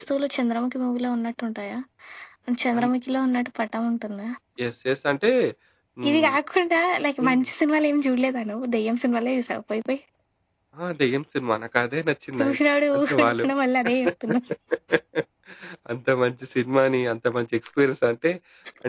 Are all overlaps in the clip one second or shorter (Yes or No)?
Yes